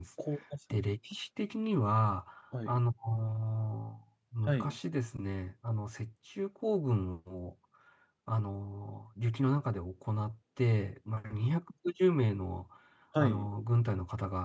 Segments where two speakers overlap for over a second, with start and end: none

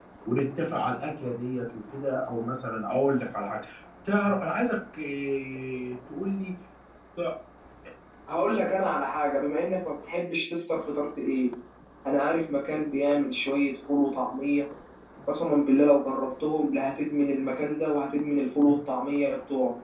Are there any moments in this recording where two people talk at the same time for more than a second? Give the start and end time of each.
none

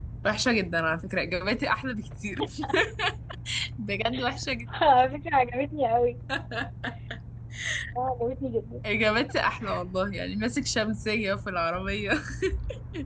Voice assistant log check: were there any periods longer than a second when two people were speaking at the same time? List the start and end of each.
none

